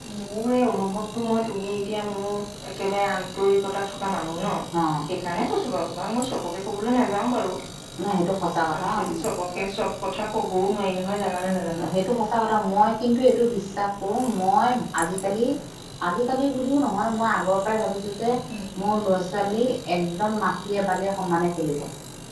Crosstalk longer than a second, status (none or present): none